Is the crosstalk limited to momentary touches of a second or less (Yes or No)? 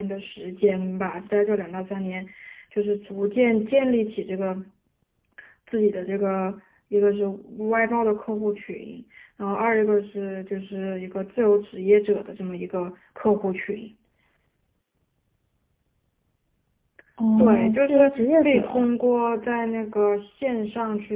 No